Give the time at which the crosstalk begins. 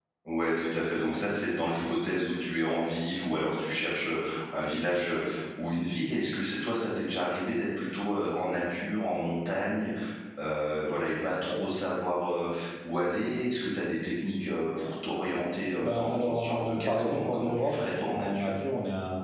15.8 s

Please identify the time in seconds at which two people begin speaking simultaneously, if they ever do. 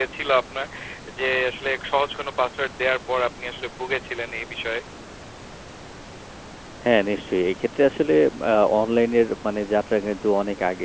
none

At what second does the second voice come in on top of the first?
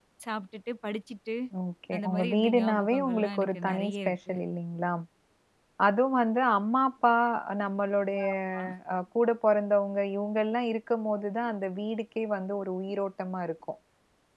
1.9 s

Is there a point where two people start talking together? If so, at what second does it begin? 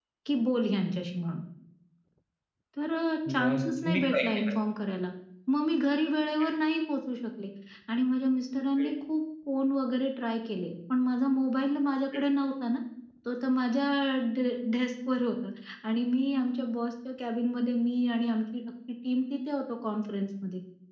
3.3 s

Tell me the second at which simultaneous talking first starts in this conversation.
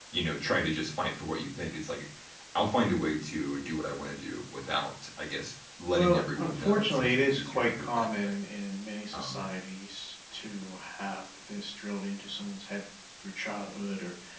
5.9 s

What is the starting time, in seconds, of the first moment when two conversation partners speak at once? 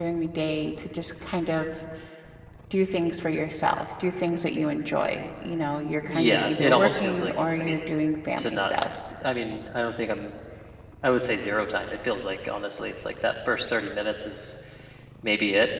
6.0 s

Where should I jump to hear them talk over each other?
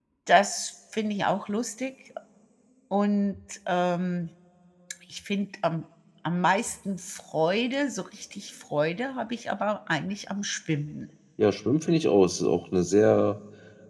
none

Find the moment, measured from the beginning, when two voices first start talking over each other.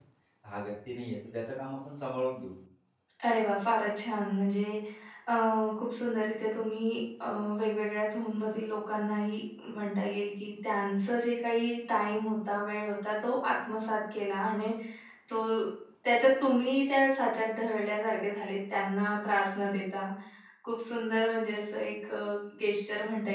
none

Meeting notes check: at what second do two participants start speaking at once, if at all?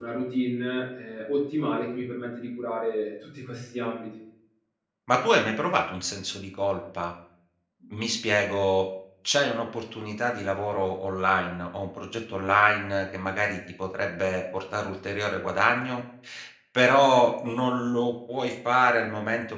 none

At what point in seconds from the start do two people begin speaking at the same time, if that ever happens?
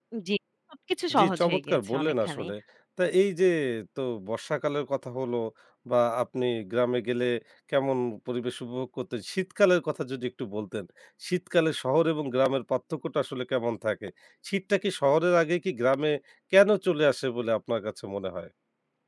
1.2 s

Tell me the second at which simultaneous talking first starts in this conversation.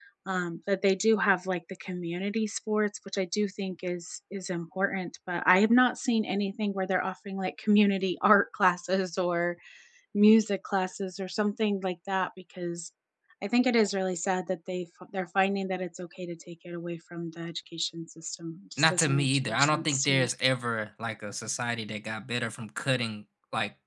18.8 s

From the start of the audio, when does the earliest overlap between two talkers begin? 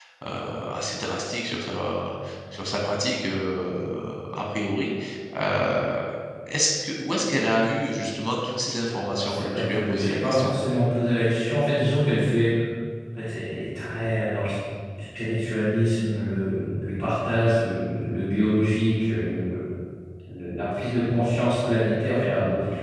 8.9 s

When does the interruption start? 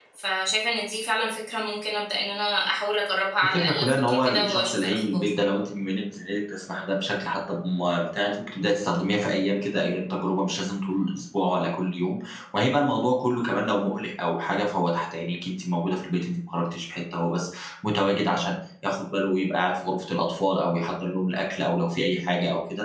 3.4 s

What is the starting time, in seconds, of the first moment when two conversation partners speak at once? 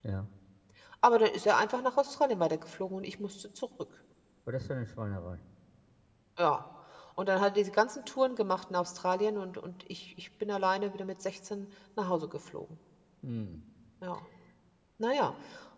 none

